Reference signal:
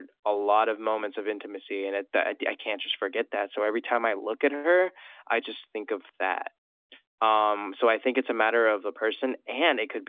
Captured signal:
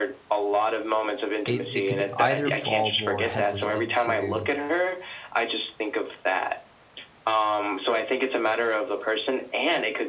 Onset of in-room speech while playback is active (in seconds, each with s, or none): 1.4 s